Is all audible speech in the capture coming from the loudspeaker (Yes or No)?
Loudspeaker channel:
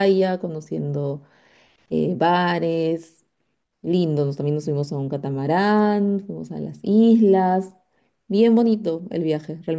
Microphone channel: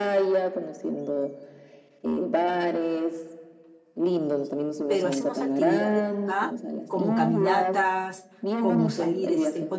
No